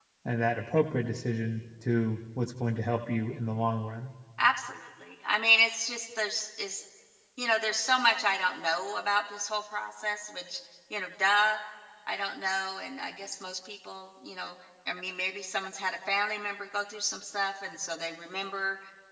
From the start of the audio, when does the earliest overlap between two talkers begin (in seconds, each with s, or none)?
none